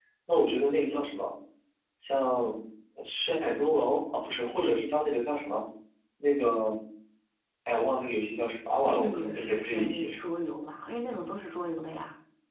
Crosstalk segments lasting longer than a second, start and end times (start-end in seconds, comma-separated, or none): 8.8-10.3